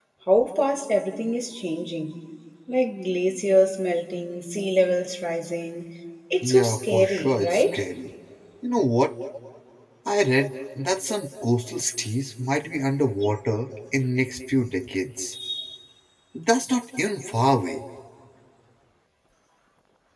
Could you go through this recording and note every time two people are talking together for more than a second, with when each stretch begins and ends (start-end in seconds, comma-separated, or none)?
6.4-7.8